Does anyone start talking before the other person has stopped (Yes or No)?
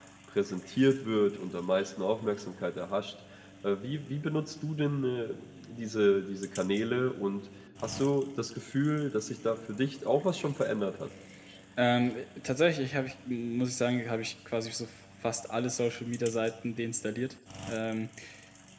No